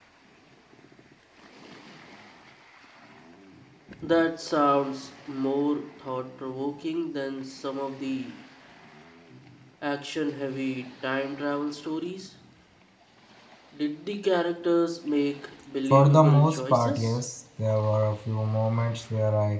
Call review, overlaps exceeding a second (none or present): present